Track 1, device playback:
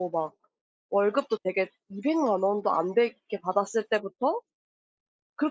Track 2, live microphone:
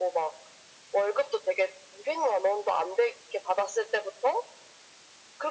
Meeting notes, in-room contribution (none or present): none